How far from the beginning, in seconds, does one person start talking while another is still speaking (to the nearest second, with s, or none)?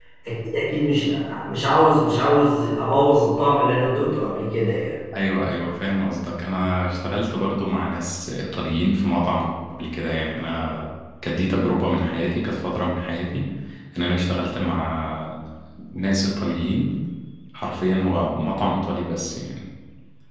none